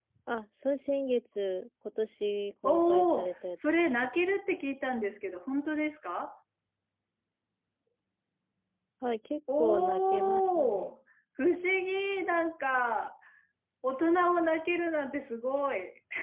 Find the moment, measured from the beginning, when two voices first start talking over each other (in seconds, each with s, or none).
2.6 s